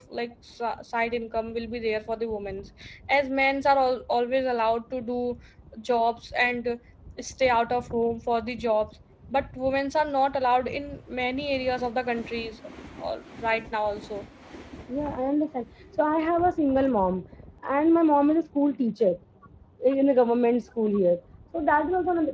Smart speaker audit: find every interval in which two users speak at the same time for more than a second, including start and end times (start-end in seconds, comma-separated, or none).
none